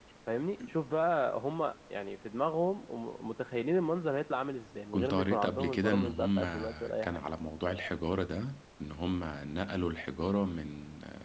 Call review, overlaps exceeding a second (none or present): present